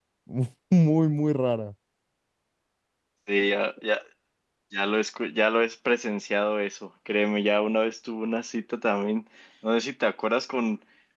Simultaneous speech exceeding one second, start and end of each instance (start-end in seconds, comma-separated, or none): none